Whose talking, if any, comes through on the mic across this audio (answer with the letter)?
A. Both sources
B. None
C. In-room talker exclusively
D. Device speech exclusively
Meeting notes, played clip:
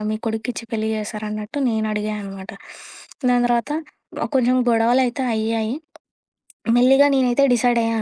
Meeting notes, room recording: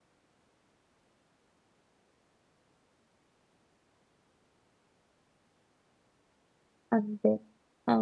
C